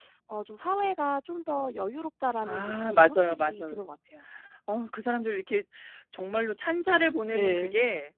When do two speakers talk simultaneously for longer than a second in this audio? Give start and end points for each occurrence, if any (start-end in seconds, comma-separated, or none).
2.4-3.8